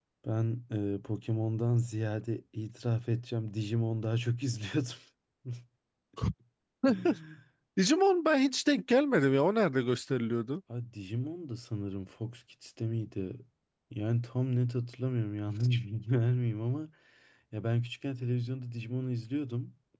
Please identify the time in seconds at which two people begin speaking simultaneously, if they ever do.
none

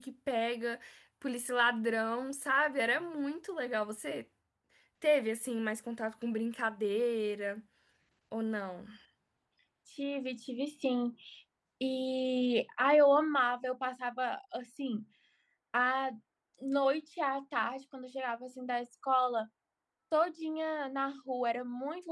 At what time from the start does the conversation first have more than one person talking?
none

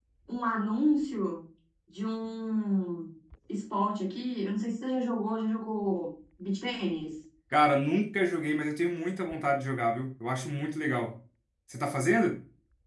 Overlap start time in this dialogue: none

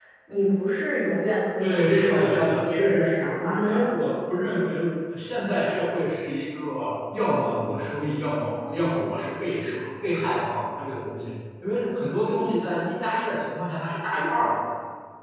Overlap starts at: 1.6 s

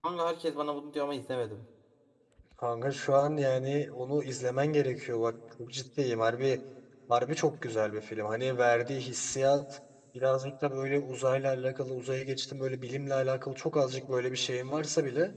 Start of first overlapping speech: none

